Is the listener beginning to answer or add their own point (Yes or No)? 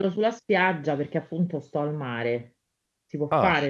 No